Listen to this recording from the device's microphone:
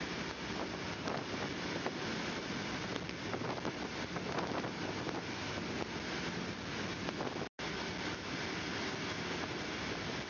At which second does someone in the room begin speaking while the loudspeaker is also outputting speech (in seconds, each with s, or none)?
none